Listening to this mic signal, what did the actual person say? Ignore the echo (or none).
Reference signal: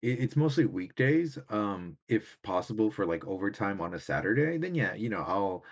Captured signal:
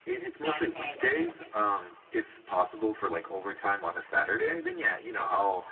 9 to 5. Okay, okay.